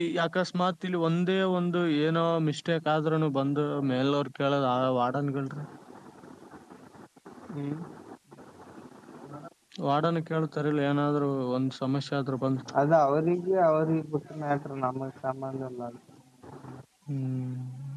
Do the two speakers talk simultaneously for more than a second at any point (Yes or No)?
No